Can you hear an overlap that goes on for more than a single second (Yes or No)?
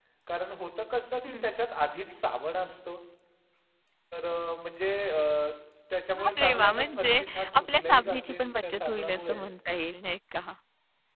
Yes